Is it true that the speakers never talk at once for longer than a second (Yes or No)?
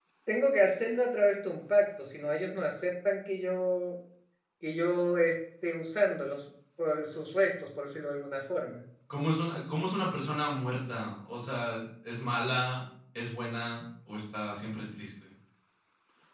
Yes